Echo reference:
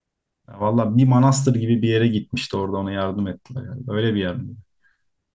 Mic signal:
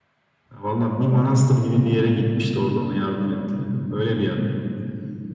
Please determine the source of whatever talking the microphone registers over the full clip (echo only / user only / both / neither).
echo only